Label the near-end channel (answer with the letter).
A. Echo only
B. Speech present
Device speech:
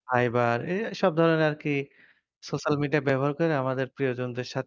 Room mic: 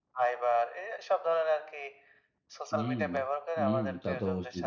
B